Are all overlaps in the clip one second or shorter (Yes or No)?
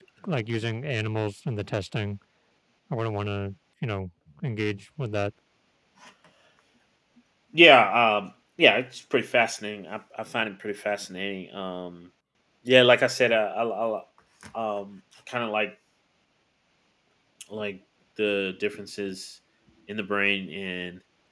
Yes